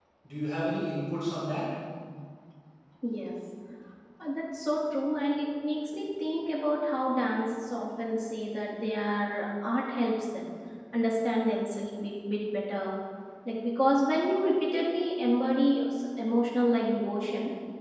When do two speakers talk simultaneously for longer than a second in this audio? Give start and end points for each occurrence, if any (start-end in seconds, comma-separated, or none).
none